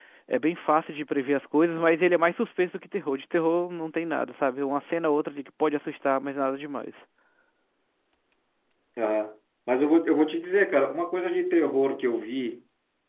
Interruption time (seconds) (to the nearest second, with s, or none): none